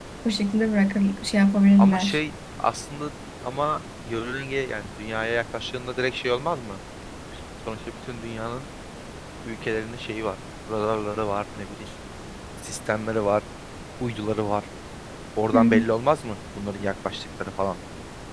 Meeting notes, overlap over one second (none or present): none